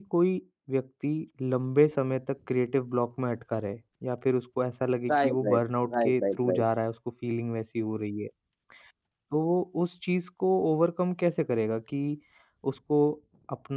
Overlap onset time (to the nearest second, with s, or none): 5 s